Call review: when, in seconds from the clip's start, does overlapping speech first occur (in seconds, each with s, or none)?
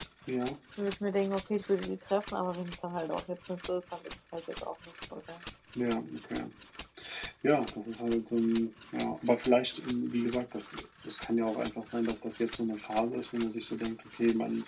none